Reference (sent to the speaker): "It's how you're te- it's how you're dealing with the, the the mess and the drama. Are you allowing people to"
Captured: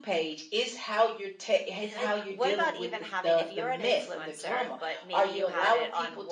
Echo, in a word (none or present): present